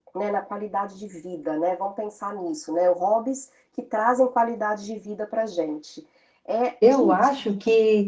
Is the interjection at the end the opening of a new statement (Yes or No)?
Yes